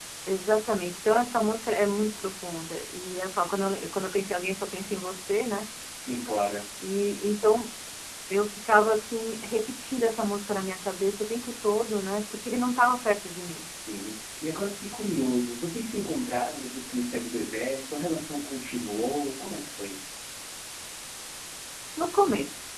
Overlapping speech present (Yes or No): No